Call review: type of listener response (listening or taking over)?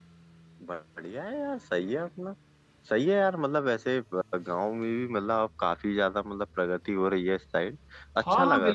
taking over